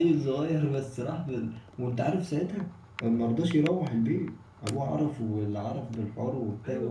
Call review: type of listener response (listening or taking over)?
taking over